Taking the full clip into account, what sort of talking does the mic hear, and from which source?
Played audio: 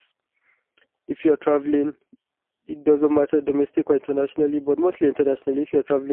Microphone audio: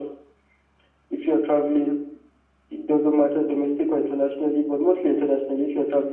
echo only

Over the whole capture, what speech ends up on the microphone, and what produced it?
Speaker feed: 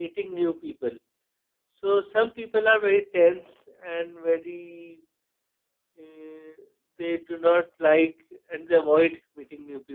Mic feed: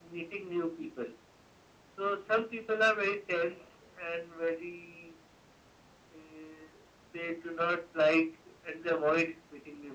echo only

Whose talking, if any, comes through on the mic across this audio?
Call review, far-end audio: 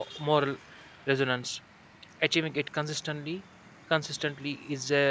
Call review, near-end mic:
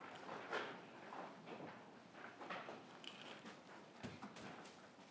neither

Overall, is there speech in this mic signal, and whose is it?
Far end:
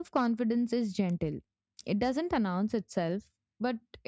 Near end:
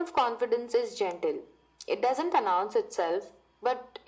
echo only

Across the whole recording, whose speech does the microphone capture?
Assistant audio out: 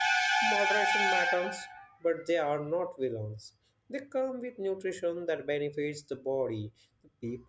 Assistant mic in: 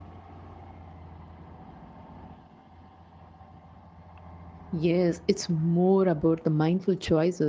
user only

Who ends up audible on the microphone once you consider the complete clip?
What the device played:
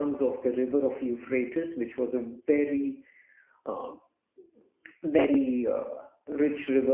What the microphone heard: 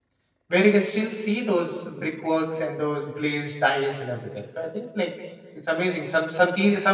user only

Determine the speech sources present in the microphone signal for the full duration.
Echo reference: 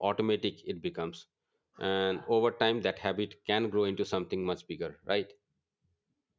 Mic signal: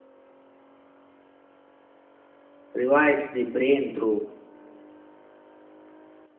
user only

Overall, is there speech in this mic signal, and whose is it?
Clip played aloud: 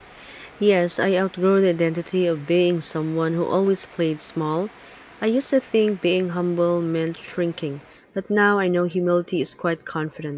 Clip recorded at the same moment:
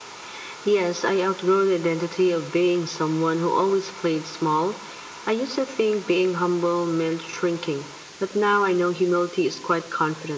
echo only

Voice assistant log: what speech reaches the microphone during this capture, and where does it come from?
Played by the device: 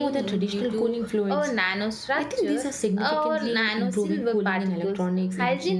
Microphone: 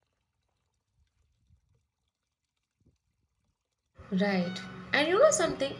user only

